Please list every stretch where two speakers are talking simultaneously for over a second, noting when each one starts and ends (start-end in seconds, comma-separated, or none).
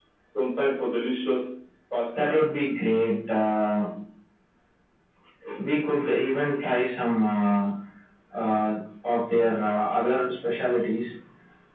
none